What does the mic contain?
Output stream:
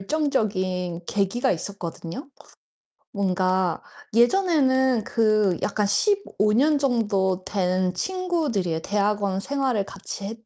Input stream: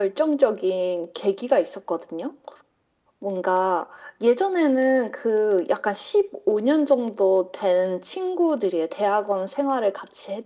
echo only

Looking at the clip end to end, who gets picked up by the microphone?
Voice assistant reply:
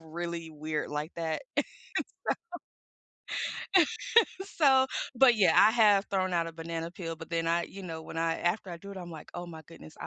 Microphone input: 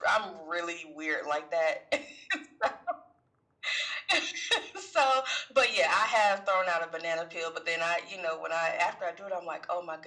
echo only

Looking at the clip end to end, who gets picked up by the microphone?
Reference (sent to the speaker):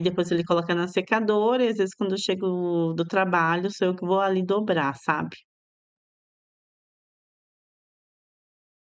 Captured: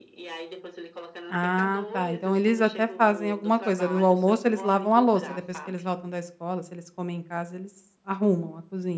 both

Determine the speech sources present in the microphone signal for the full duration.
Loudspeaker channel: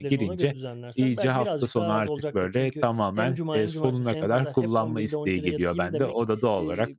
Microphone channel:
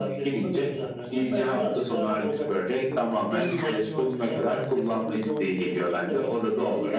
echo only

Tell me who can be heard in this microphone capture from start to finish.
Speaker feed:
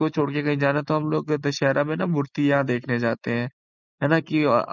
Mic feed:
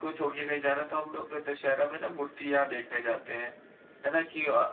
echo only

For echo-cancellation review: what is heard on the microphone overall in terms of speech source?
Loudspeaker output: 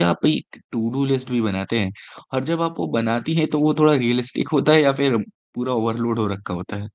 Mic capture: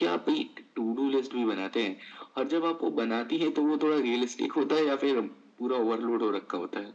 echo only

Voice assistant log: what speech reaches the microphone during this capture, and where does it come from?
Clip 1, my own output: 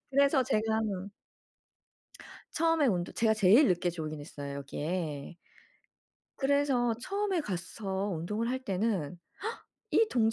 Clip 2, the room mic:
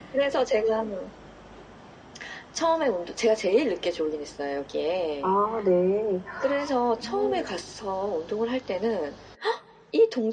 both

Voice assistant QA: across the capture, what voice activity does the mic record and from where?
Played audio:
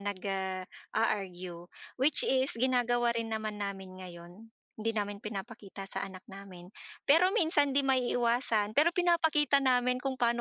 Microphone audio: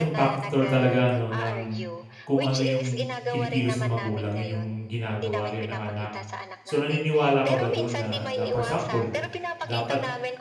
both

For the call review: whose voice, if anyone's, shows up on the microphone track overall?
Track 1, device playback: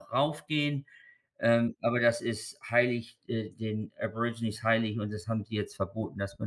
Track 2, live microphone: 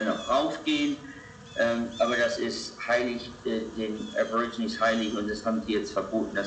echo only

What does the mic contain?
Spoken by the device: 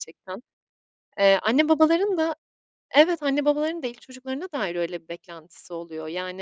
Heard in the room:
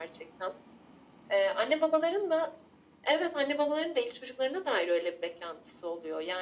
echo only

